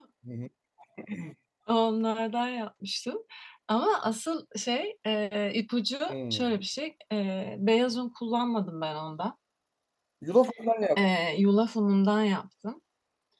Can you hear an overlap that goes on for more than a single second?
No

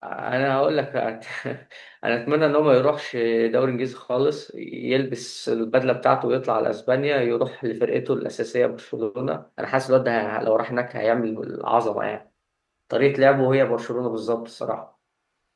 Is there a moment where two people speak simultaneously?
No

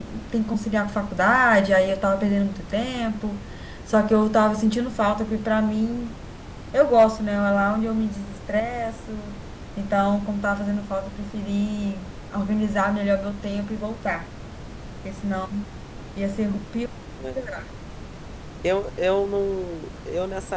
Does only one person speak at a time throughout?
Yes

